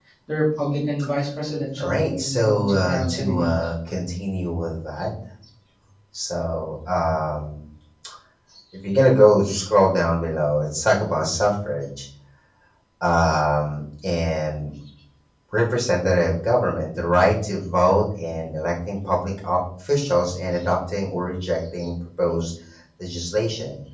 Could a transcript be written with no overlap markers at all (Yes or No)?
No